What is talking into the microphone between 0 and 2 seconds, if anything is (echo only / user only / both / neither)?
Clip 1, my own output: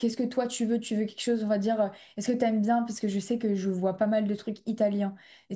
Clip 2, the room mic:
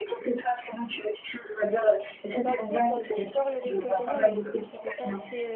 echo only